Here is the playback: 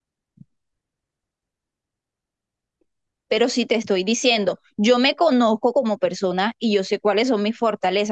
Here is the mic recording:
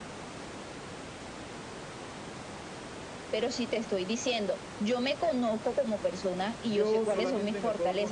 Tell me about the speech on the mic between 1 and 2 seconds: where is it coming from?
neither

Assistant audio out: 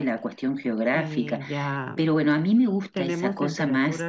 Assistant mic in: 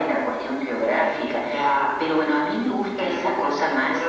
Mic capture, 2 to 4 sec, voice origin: echo only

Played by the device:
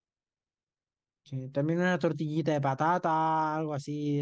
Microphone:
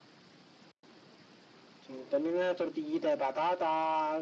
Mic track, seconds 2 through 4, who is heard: echo only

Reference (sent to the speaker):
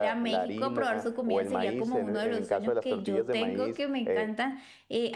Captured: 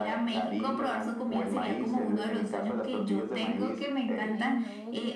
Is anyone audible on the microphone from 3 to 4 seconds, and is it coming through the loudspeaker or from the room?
echo only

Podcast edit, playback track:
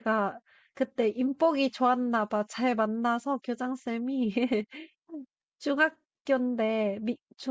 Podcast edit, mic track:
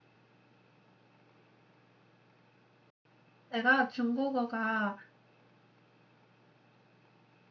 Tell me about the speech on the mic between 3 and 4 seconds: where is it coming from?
user only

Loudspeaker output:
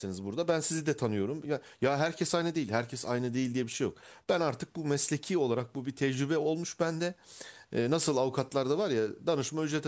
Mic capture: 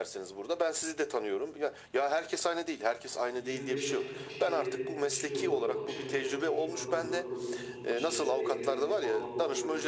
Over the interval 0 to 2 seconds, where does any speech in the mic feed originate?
echo only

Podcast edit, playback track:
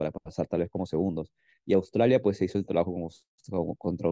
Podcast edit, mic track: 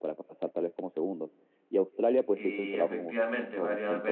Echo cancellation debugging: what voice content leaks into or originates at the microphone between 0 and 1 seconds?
echo only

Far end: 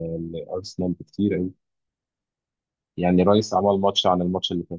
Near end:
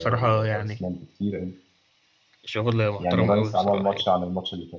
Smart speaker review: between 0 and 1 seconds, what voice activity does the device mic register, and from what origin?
both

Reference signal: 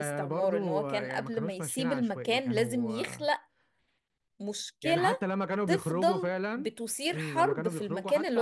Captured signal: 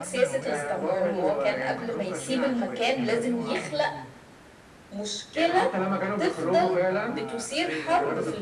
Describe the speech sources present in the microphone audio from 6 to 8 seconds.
both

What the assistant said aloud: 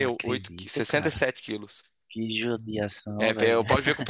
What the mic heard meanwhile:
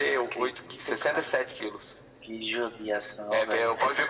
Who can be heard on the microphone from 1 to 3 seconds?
echo only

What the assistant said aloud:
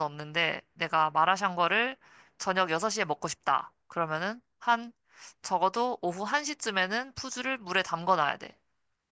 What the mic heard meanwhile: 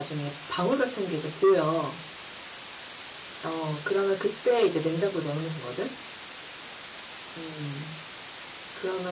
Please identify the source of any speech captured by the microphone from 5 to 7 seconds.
user only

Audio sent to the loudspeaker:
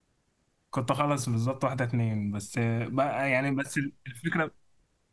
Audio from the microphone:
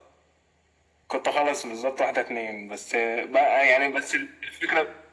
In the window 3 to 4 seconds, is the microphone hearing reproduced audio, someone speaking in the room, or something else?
echo only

